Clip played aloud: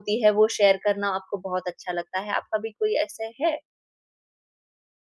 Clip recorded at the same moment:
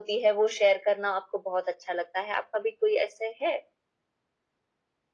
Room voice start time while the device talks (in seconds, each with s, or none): none